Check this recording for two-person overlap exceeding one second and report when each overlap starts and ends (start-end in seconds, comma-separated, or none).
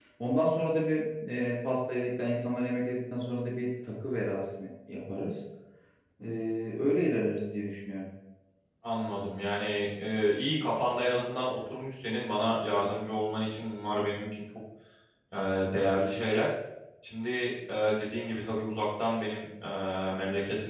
none